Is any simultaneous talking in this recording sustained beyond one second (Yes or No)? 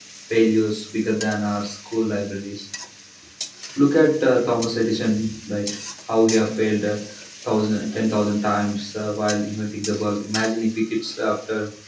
No